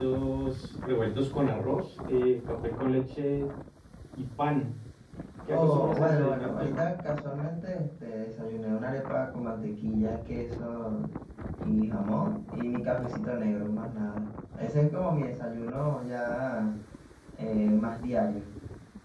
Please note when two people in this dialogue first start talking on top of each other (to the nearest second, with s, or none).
6 s